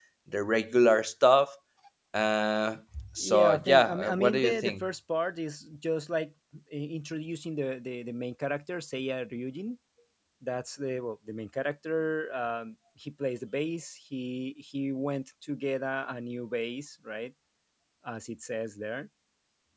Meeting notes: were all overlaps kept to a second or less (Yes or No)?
No